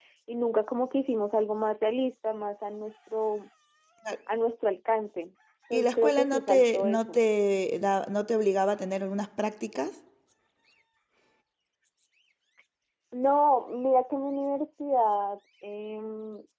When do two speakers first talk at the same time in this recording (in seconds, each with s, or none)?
5.7 s